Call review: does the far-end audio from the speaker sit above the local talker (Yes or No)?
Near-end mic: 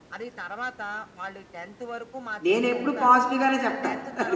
No